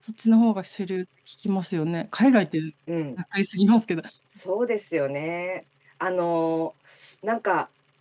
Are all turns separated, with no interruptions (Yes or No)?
Yes